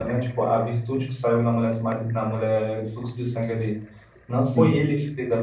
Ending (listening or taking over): listening